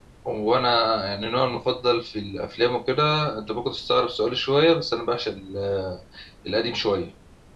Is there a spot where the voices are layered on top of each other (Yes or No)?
No